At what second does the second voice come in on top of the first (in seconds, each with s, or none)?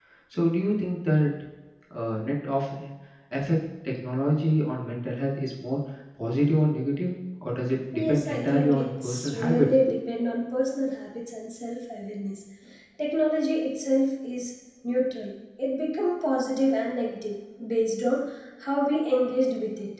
7.9 s